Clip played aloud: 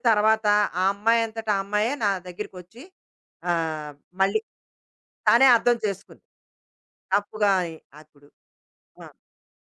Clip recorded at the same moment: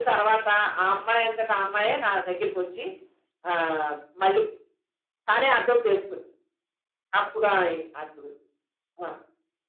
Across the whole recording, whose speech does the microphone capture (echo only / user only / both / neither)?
echo only